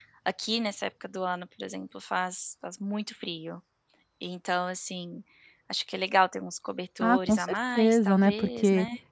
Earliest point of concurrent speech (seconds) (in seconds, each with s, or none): 7.0 s